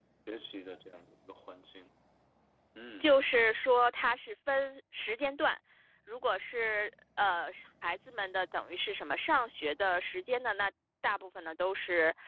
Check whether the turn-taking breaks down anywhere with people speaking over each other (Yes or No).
No